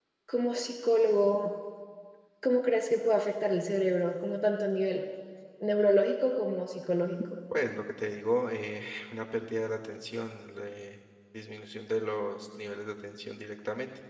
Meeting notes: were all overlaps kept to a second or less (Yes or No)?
Yes